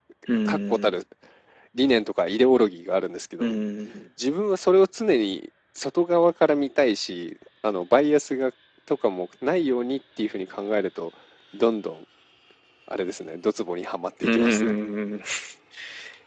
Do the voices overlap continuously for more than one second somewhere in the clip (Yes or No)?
No